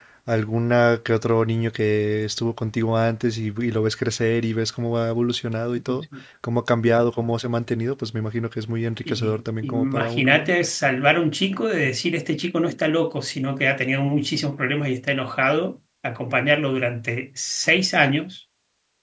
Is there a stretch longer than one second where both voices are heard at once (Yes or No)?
Yes